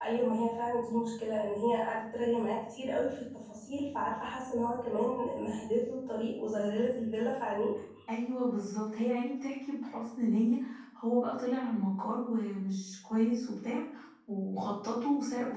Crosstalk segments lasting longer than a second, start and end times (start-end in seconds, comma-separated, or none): none